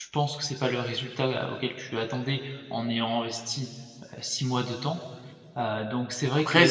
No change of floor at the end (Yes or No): No